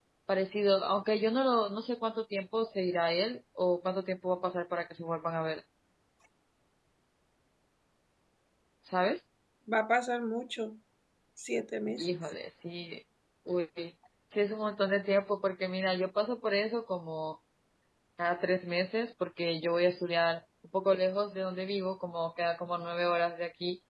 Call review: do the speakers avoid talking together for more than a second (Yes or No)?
Yes